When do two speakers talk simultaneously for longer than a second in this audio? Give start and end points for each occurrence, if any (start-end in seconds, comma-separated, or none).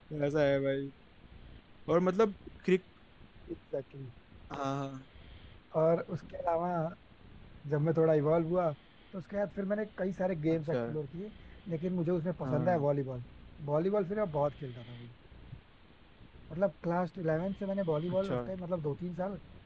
none